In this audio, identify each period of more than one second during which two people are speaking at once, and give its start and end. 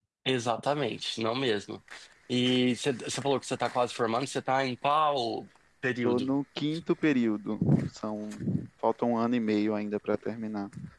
none

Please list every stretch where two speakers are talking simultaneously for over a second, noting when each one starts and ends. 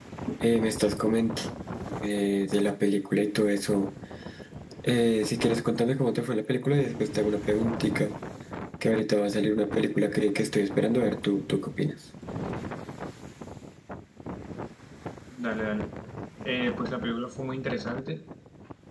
none

